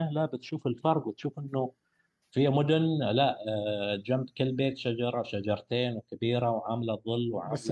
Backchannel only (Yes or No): No